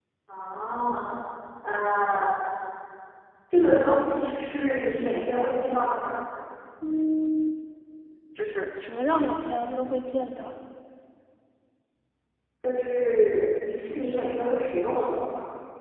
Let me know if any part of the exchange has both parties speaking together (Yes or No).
No